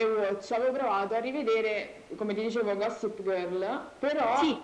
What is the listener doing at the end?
listening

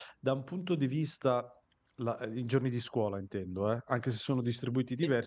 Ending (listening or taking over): listening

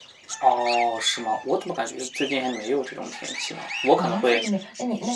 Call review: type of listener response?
taking over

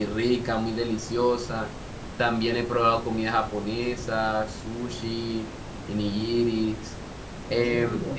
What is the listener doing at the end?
taking over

